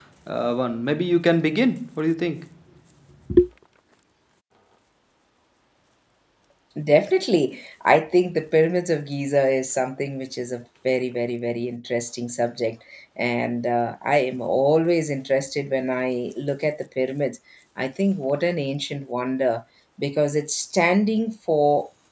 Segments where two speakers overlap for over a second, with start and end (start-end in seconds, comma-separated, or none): none